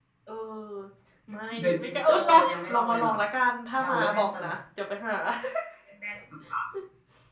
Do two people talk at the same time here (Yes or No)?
Yes